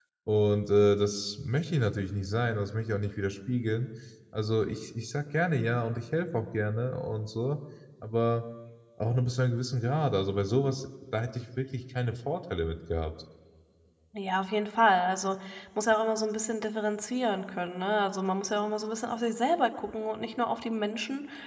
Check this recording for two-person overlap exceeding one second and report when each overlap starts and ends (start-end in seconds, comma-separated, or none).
none